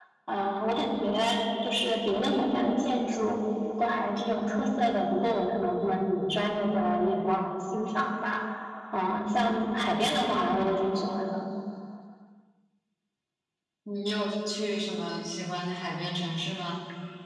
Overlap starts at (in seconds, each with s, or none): none